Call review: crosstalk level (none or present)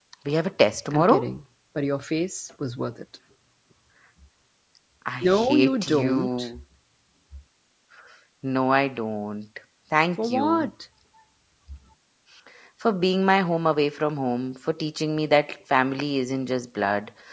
present